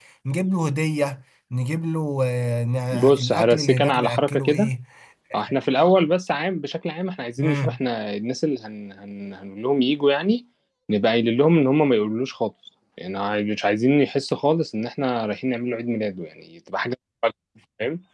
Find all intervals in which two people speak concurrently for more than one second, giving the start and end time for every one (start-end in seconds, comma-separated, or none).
2.9-4.7